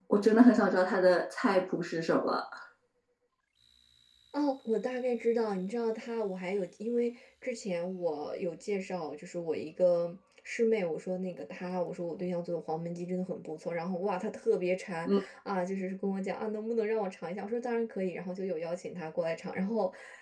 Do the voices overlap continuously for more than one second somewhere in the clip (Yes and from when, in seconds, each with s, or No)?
No